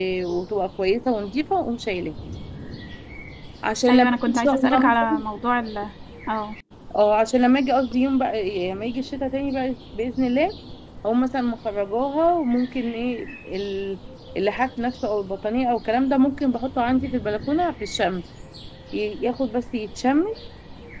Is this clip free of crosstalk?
No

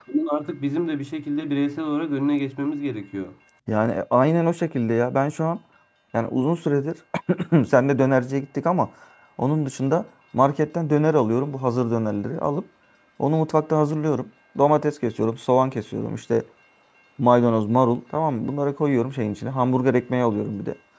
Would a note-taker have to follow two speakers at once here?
No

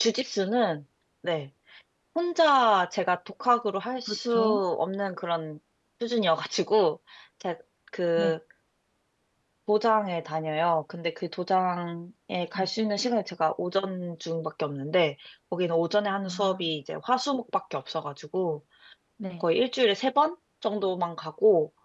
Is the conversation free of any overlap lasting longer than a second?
Yes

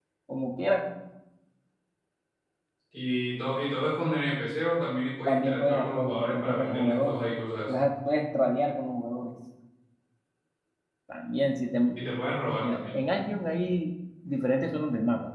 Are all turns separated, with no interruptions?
No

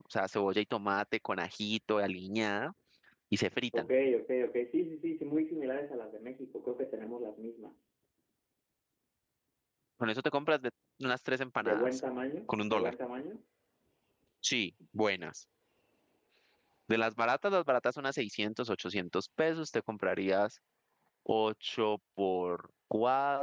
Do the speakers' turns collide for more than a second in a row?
No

